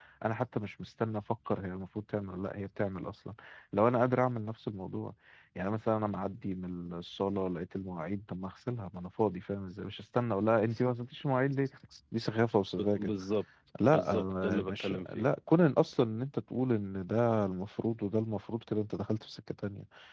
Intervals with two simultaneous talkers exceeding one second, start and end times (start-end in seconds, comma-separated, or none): 13.9-15.3